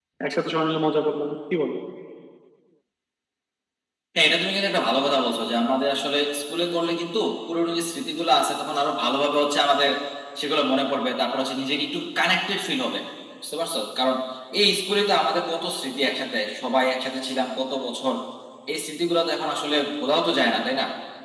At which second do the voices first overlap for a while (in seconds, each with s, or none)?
none